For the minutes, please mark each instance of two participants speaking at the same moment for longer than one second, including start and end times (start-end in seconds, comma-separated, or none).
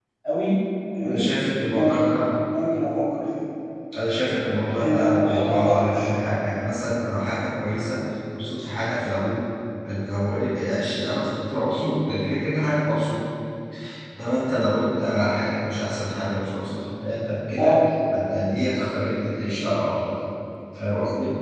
4.8-6.4